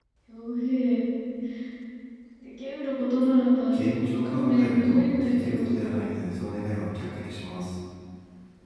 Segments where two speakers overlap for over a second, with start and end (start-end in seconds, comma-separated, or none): 3.7-6.0